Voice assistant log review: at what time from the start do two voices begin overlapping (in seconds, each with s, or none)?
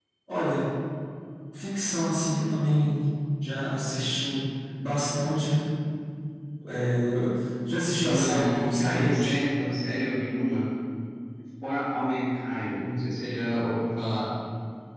8.1 s